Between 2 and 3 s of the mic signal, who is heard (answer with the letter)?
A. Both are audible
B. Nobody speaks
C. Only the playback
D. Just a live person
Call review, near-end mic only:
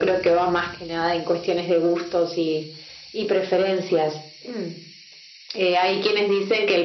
C